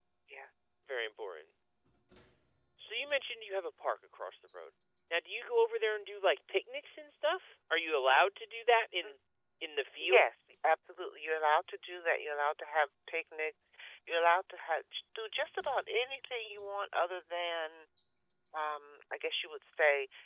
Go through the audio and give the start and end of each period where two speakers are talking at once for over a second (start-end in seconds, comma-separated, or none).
none